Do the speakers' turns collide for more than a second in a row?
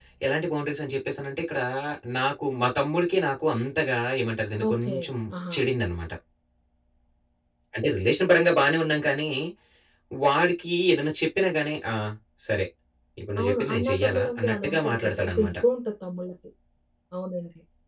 Yes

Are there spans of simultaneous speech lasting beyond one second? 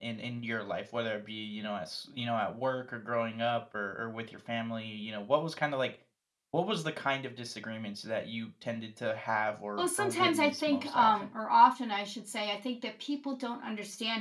Yes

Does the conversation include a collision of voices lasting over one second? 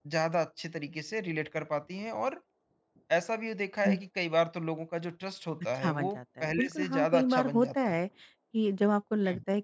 Yes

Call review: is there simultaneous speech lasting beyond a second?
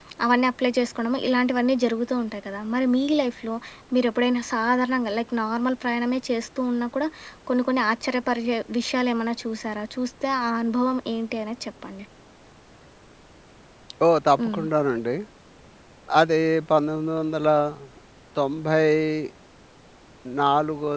No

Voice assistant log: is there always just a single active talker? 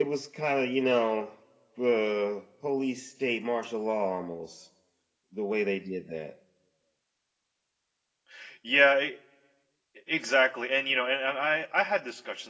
Yes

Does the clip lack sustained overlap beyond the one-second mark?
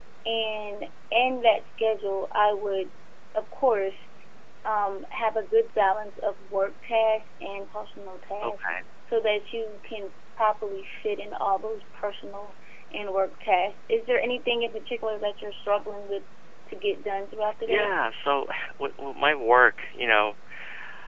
Yes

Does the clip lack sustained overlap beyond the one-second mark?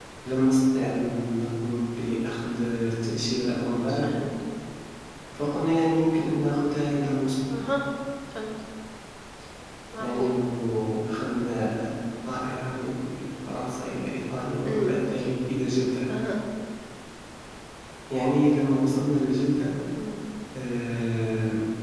Yes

